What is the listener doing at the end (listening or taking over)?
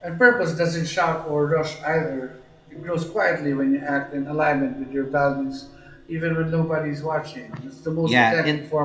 taking over